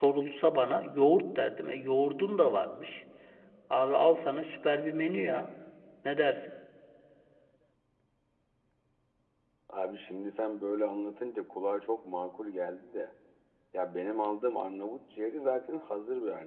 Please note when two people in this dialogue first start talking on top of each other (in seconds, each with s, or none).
none